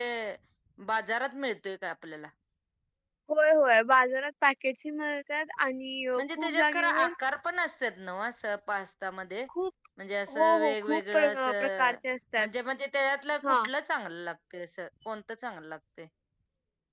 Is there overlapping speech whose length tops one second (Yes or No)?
Yes